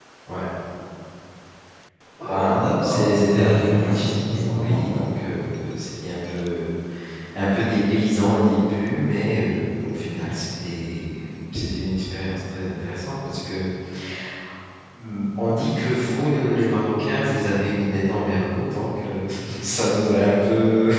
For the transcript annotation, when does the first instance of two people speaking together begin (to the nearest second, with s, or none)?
2 s